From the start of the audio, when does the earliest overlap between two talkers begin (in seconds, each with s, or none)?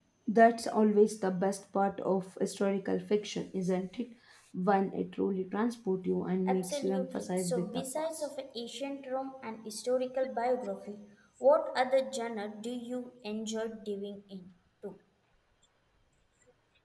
6.5 s